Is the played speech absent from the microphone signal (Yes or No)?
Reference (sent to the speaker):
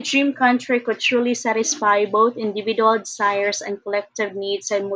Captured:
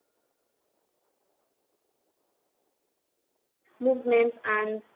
Yes